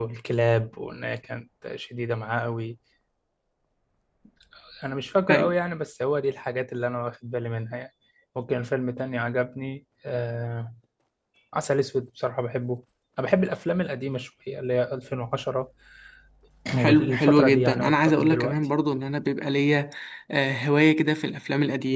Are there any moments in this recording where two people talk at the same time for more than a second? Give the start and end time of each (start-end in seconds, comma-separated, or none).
16.8-18.7